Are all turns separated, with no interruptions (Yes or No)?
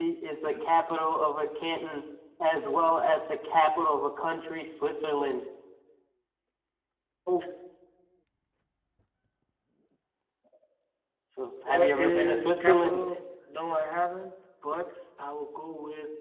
No